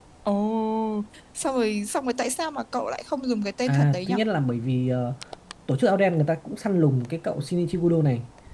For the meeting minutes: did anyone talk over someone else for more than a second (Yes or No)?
No